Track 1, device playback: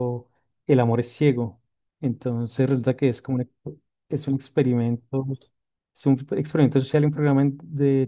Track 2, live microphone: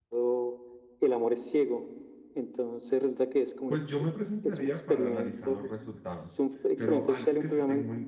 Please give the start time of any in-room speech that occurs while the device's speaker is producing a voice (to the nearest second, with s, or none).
4 s